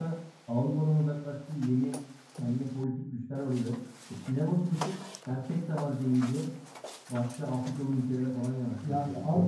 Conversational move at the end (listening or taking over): taking over